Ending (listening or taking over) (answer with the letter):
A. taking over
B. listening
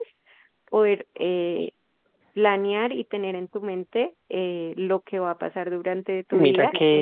A